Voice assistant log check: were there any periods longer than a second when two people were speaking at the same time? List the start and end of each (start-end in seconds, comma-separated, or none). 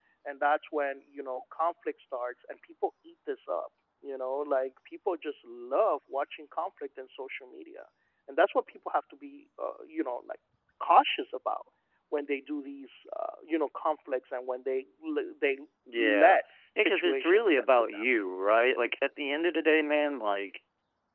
16.8-18.1